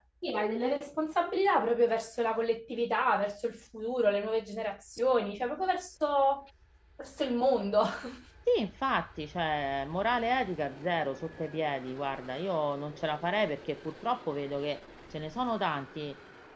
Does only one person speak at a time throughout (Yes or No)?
Yes